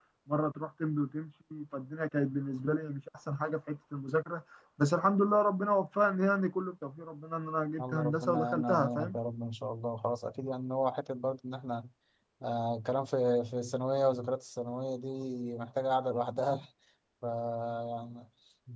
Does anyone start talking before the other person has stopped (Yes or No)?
Yes